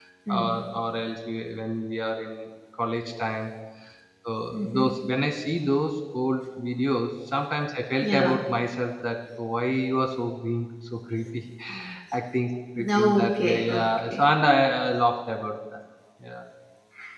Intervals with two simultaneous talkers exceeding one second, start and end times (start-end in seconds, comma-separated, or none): 12.8-14.2